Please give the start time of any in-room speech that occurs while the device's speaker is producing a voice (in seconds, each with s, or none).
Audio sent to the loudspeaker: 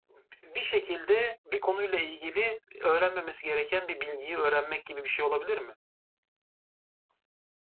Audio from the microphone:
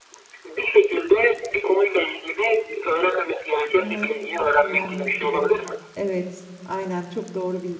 3.8 s